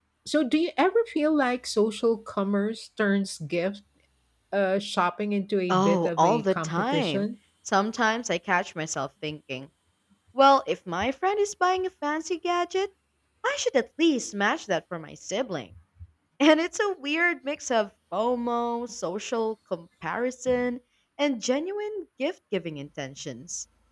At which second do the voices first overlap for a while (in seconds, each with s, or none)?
5.7 s